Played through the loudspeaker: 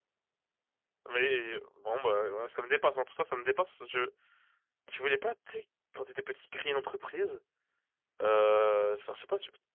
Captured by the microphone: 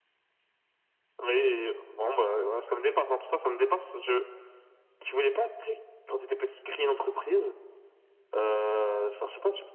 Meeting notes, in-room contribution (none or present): none